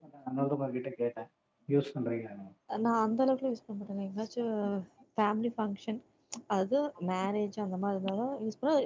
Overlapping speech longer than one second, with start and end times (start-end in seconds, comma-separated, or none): none